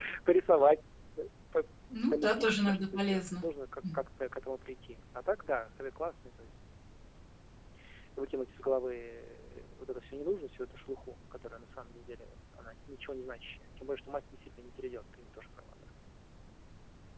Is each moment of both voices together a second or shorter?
No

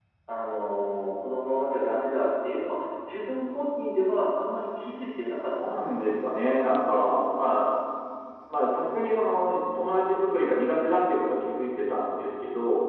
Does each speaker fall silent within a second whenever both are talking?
Yes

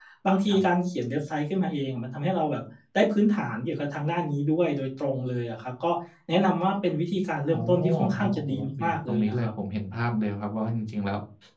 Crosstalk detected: Yes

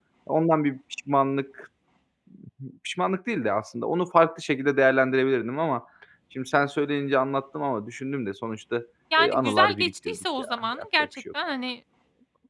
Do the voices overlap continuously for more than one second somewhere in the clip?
Yes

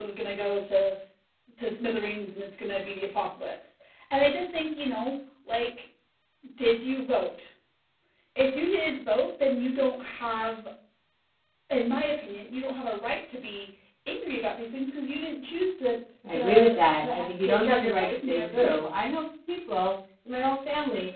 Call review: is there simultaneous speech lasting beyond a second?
Yes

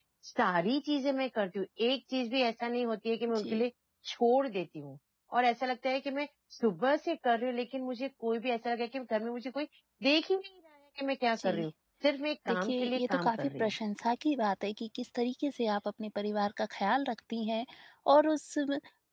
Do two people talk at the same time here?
Yes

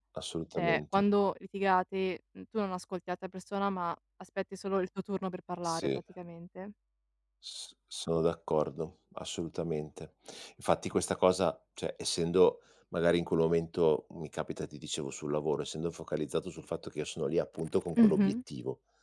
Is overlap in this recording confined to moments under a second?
Yes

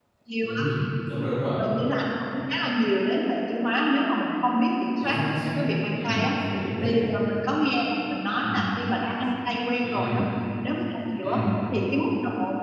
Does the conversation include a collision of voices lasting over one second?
No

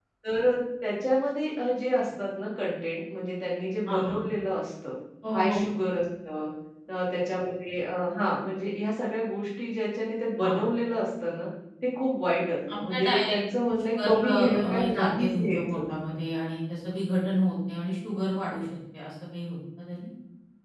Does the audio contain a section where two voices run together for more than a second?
Yes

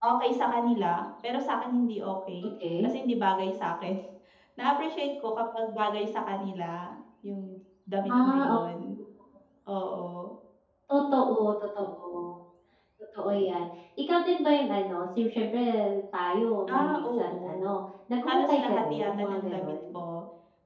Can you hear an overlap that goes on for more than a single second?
Yes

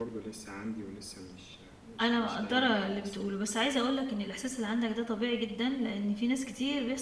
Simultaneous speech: Yes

